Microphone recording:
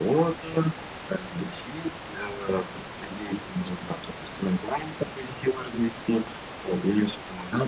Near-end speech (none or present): none